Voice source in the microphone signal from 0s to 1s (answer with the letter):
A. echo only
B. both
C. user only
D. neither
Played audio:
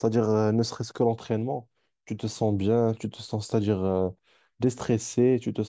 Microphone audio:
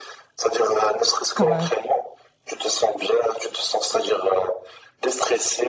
A